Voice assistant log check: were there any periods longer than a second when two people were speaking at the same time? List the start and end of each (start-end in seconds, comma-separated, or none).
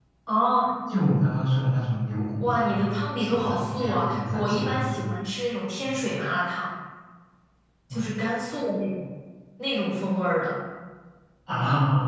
2.4-5.2